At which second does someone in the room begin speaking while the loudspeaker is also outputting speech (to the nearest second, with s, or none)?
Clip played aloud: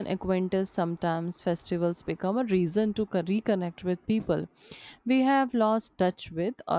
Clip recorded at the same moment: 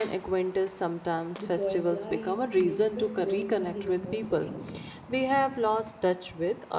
1 s